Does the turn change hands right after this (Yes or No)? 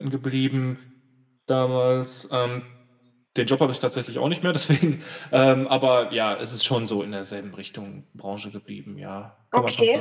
Yes